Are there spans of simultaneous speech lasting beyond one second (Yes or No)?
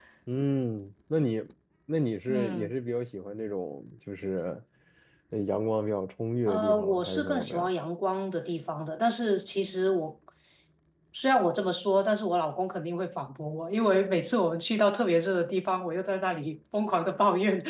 Yes